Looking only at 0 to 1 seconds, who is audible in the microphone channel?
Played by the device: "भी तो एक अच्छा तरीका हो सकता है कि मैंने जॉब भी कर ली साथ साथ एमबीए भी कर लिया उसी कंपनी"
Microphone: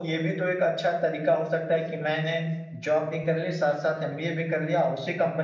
echo only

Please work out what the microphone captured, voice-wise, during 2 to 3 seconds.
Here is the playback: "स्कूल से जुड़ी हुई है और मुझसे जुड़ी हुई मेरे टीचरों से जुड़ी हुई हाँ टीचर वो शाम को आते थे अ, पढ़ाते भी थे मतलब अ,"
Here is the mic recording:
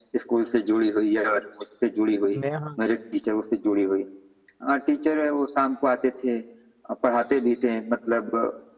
both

